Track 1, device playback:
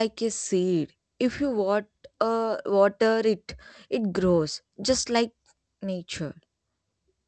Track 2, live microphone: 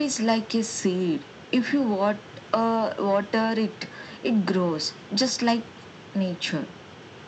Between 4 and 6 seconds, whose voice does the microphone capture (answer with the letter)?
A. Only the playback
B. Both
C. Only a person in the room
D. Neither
A